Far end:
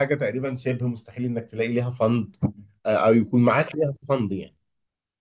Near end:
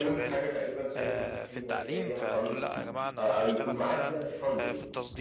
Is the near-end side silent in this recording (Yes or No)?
No